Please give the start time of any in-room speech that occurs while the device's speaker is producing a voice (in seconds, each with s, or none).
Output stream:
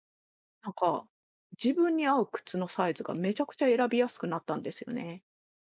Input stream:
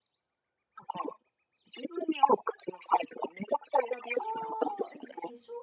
4.1 s